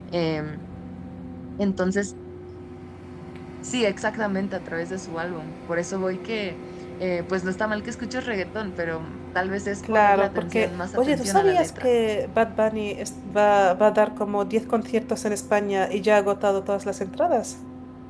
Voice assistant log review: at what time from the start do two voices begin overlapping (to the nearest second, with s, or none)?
10 s